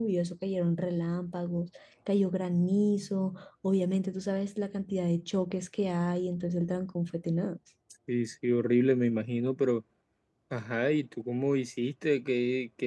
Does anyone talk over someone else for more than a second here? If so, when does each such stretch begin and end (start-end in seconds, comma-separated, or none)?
none